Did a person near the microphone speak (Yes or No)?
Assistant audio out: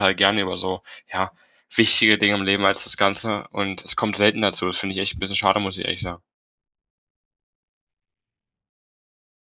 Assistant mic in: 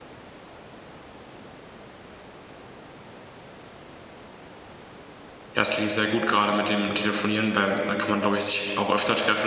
Yes